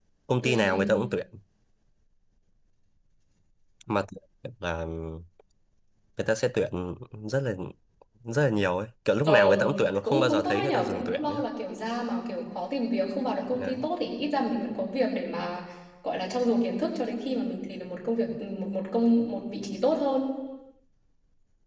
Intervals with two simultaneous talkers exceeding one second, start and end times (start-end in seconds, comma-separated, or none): 10.0-11.4